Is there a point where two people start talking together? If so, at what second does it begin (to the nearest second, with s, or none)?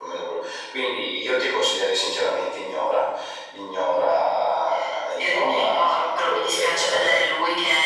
5 s